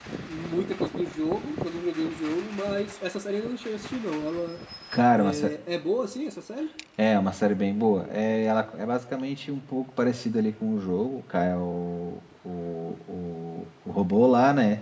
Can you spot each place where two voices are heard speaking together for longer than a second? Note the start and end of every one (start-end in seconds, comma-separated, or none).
none